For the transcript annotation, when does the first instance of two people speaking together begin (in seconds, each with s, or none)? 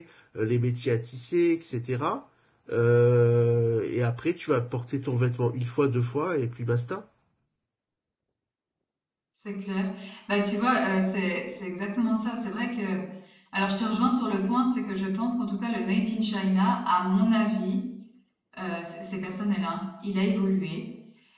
none